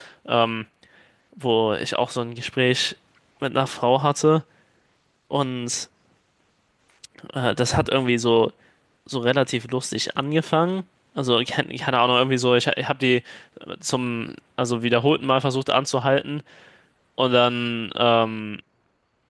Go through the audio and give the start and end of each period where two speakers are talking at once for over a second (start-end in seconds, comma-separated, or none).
none